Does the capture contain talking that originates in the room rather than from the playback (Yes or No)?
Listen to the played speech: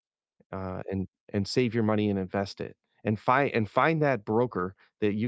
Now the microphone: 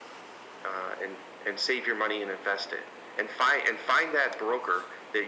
No